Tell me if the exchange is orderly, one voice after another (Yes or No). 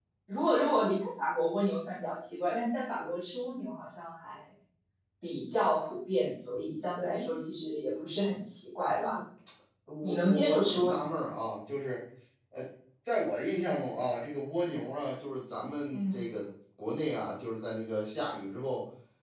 No